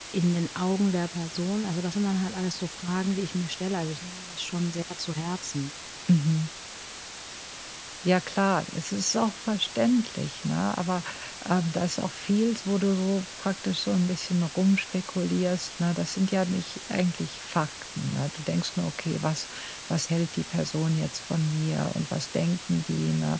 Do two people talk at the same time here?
No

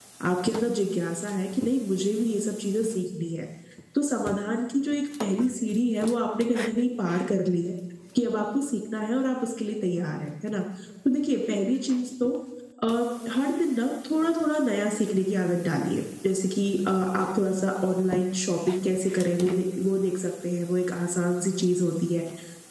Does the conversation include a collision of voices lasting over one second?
No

